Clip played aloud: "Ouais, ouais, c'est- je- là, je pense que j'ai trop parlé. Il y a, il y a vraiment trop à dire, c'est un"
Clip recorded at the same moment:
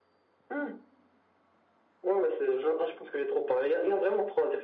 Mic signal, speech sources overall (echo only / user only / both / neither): echo only